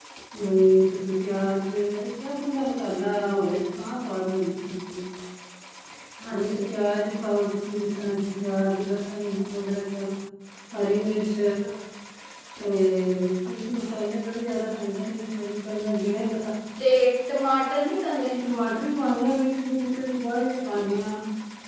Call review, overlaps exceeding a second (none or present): none